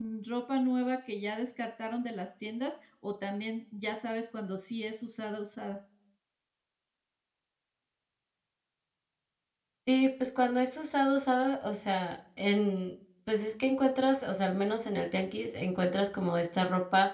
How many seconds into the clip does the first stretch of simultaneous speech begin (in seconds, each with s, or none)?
none